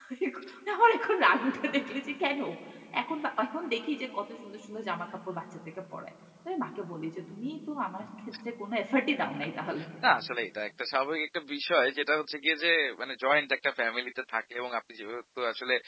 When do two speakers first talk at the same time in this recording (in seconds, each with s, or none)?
none